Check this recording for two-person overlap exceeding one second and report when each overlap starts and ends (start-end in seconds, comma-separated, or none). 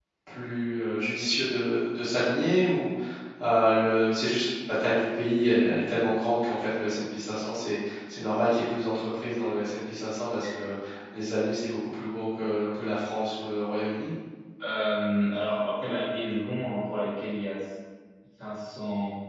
none